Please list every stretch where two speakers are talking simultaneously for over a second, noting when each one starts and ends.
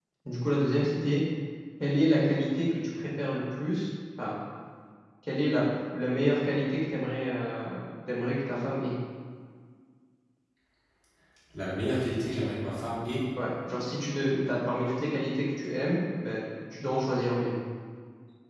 none

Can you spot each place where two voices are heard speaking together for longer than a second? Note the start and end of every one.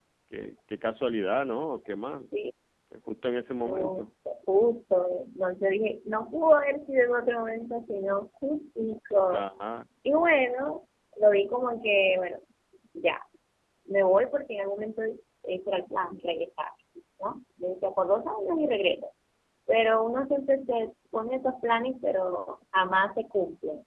none

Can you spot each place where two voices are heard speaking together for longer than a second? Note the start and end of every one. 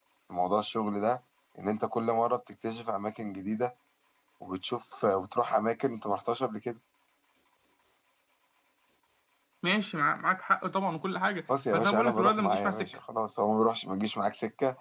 11.7-13.0

